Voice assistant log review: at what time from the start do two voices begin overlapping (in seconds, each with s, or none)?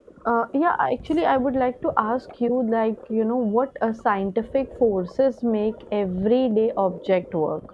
none